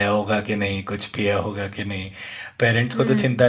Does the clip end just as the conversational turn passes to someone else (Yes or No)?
No